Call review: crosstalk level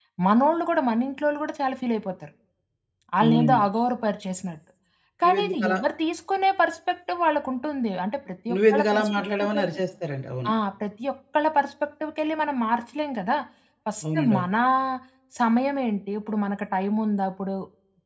present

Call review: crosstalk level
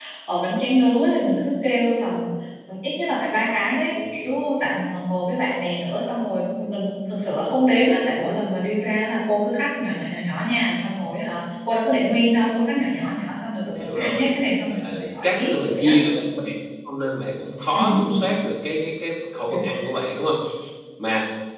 present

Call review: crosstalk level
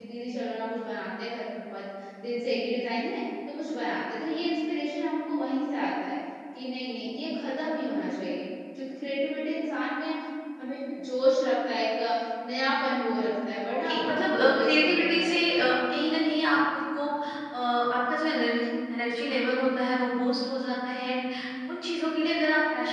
present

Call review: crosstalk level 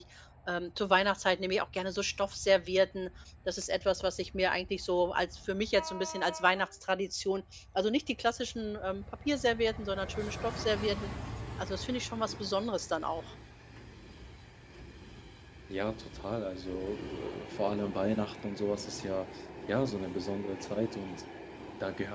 none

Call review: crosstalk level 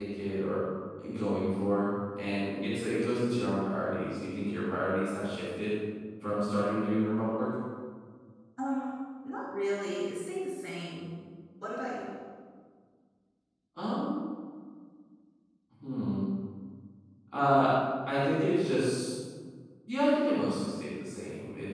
none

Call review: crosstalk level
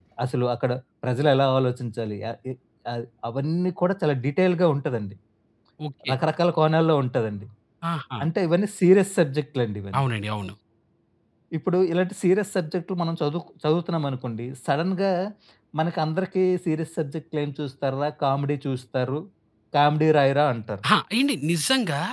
none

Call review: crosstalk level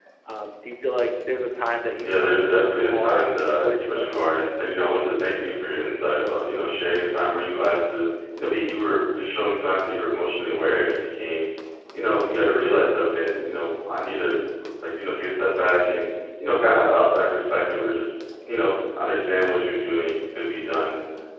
present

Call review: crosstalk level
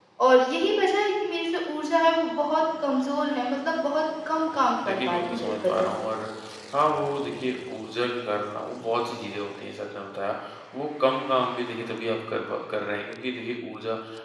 present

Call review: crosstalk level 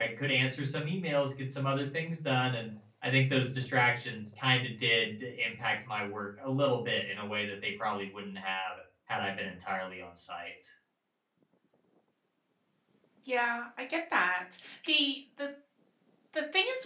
none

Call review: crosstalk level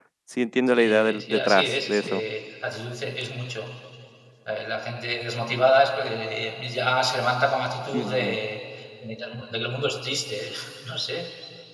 present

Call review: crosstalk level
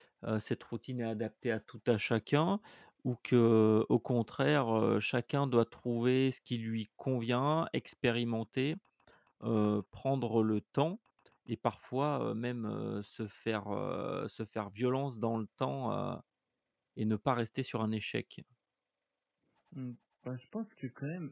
none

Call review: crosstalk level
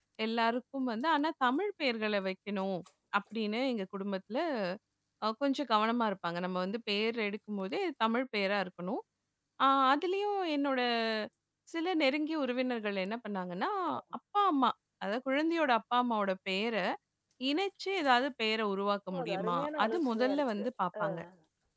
present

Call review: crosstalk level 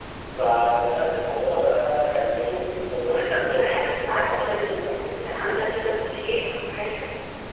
present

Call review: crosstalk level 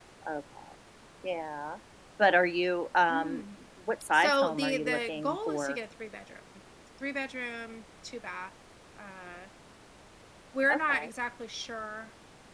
present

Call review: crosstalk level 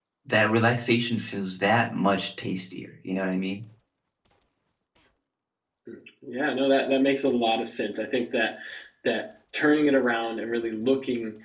none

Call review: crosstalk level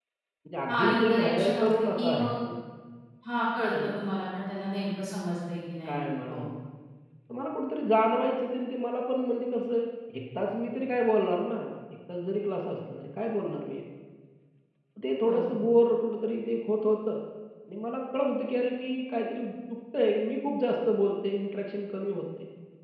present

